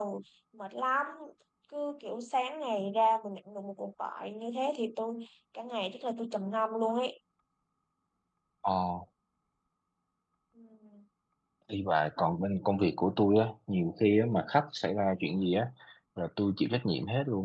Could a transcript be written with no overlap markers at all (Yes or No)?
Yes